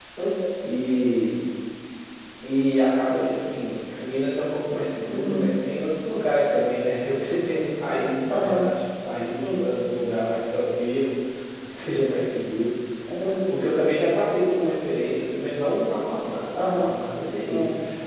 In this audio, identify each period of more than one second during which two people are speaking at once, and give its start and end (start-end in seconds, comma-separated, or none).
none